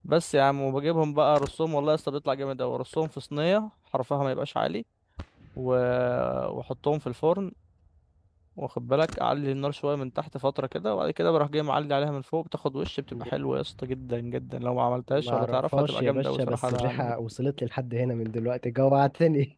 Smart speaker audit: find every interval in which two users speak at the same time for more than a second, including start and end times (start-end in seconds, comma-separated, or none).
15.1-17.1